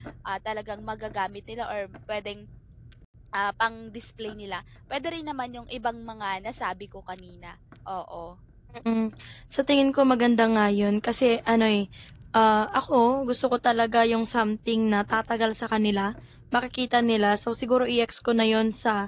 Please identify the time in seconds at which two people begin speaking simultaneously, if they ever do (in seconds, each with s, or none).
none